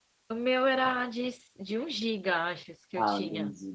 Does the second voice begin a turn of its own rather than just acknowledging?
Yes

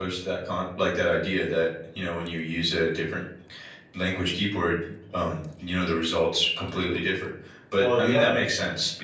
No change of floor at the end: Yes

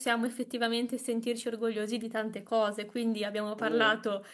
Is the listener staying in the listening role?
Yes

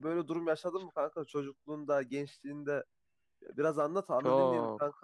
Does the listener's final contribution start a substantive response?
Yes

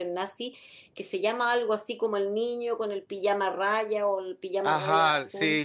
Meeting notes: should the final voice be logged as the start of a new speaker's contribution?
Yes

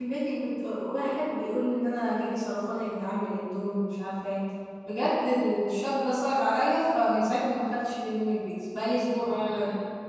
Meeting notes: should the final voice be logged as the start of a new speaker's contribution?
Yes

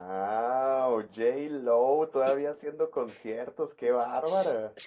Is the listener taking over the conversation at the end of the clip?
Yes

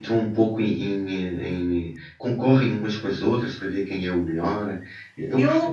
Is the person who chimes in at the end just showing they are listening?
Yes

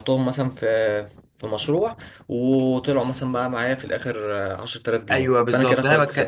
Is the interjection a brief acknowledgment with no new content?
No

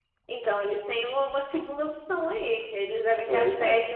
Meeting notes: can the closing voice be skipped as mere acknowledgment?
Yes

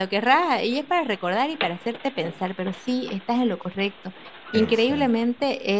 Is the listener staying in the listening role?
Yes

